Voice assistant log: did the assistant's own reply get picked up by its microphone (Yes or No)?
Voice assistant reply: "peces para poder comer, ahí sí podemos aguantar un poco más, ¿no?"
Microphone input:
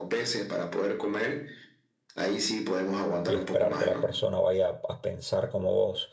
Yes